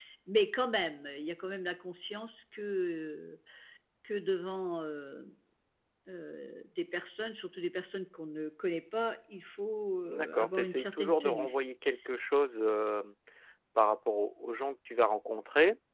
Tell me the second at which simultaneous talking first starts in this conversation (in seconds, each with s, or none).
10.0 s